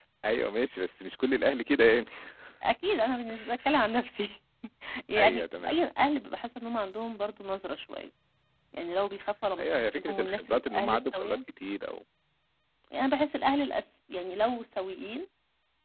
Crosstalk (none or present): present